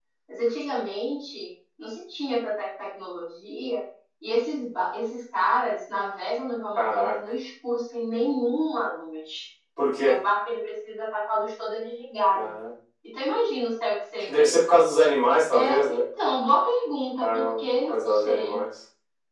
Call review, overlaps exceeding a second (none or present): present